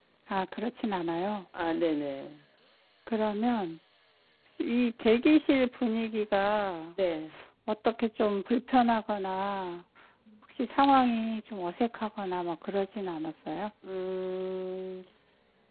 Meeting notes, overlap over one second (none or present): none